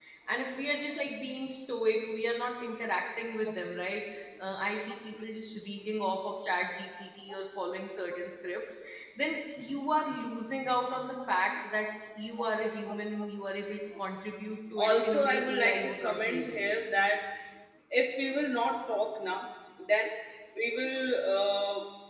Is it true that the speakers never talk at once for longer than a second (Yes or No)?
No